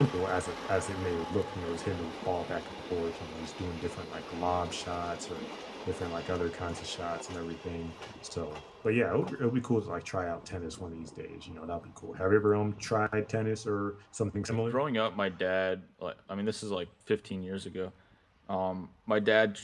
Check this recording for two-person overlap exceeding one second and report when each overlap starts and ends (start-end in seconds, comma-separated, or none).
none